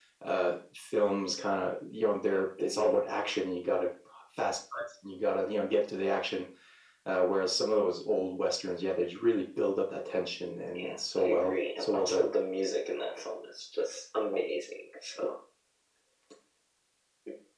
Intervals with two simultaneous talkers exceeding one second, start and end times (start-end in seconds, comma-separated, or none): 10.8-12.3